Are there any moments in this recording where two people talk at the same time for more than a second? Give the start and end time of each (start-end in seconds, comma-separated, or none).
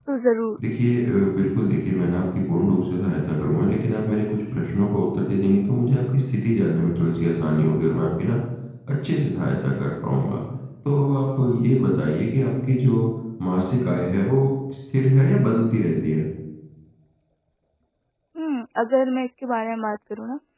none